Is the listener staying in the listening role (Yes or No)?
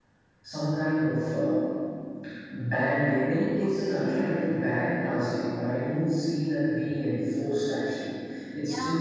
No